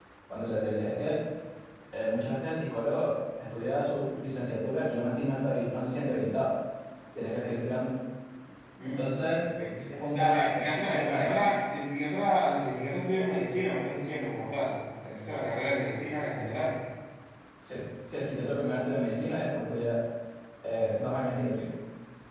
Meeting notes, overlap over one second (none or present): present